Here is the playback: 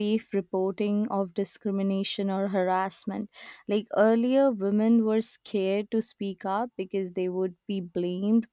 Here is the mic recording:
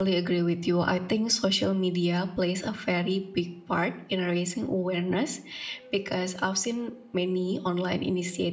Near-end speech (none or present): present